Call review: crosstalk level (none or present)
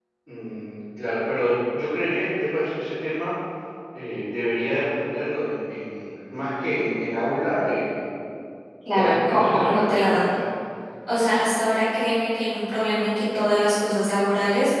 present